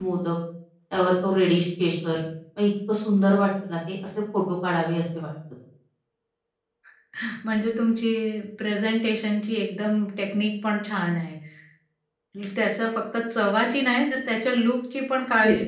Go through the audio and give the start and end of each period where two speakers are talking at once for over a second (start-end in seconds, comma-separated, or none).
none